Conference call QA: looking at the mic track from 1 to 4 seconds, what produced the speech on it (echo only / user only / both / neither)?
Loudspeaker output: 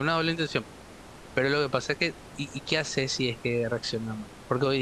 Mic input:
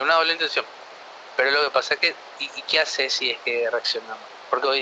echo only